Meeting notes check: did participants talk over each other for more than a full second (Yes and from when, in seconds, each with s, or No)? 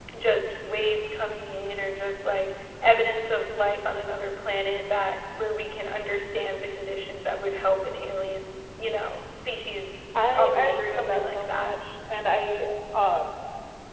Yes, from 10.2 s